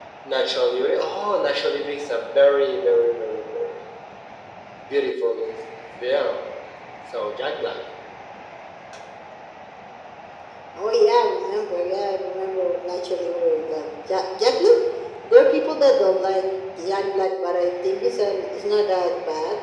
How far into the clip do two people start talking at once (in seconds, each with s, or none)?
none